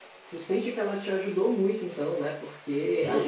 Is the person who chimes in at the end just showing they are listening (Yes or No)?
No